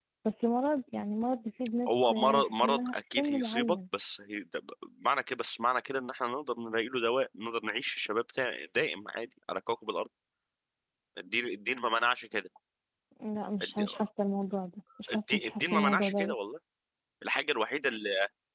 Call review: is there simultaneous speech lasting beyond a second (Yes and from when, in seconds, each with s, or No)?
Yes, from 1.9 s